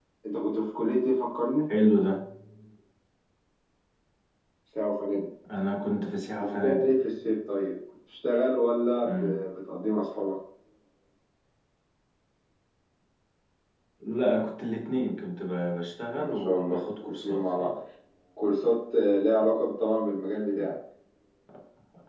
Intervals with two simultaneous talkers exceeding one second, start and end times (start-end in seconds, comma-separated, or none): 16.1-17.8